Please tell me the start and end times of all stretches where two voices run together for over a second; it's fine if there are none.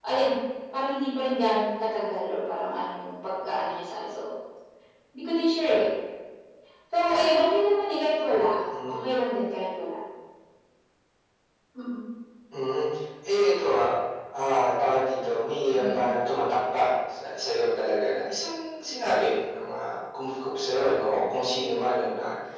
none

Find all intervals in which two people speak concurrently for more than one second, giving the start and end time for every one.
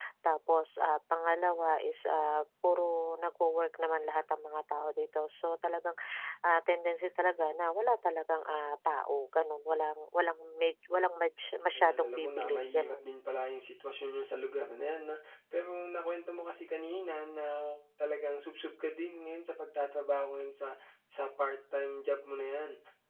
11.8-13.1

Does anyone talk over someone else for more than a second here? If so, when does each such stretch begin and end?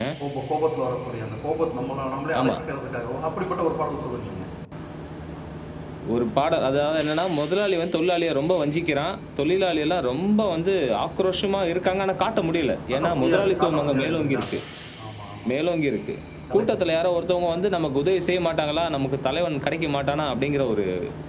12.9-14.4

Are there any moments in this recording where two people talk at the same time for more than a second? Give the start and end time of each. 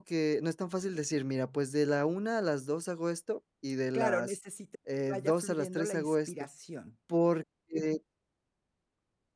5.1-6.3

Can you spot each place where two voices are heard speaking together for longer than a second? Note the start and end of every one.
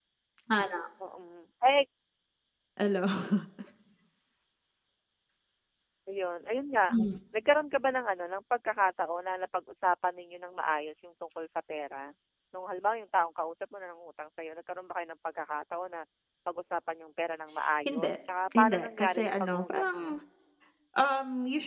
18.6-20.2

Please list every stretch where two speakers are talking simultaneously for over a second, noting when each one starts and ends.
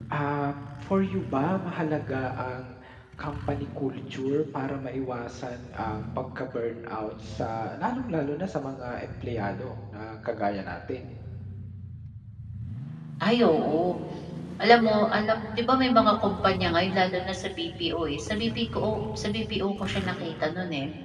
none

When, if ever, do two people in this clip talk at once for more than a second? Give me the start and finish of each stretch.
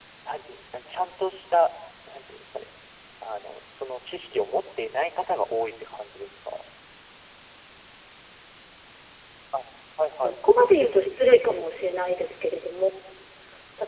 none

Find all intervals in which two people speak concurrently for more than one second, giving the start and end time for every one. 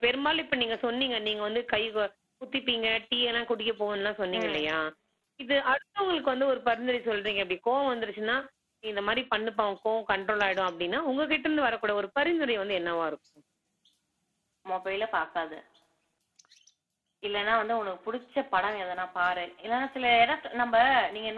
none

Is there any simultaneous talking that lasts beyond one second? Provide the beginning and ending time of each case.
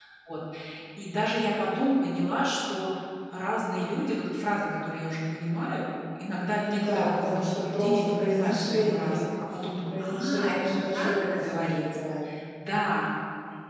6.6-9.2, 10.0-11.8

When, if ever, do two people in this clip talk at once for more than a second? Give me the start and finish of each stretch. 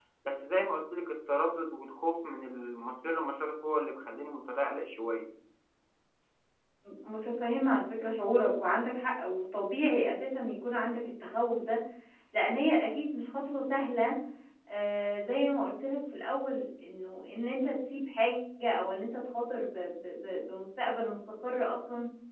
none

